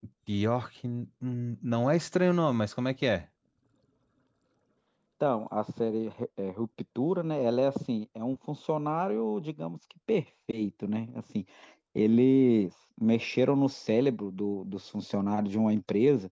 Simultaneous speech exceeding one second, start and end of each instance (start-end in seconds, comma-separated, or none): none